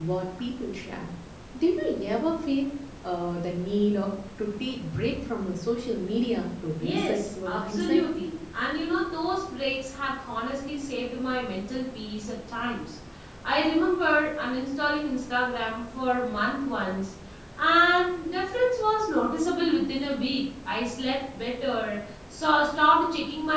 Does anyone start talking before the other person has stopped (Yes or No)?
Yes